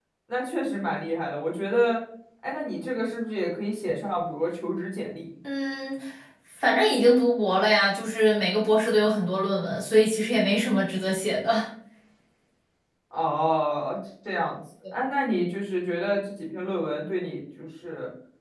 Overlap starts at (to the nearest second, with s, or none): none